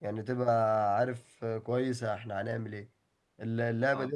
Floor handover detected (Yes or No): No